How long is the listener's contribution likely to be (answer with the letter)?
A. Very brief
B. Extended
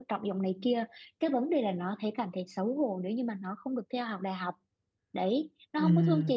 A